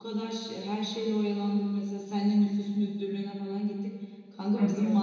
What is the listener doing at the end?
listening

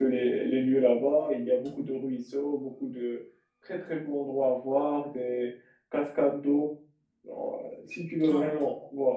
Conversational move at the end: listening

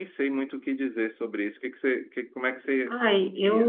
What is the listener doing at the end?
taking over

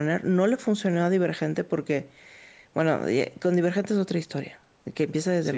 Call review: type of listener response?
listening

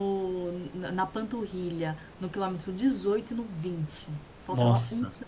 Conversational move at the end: listening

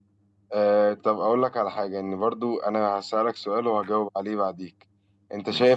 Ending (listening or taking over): listening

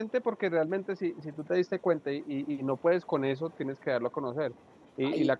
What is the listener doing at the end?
listening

